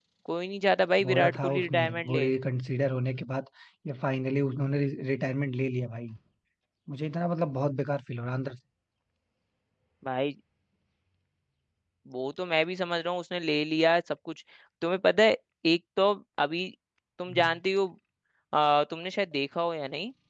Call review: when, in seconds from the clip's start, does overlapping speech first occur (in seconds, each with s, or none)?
1.0 s